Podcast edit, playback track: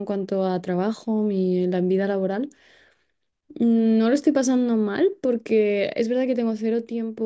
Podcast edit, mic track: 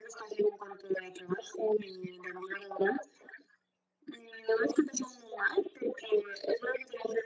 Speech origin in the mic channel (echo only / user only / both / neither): echo only